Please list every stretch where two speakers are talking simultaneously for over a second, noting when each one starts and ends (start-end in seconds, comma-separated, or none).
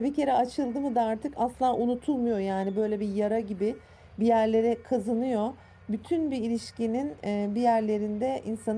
none